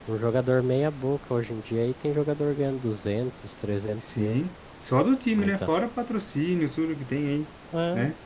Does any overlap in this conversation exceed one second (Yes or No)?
No